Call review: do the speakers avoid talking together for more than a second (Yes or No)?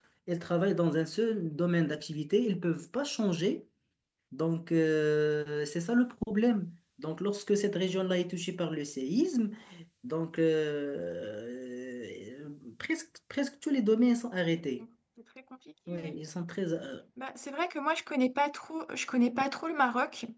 Yes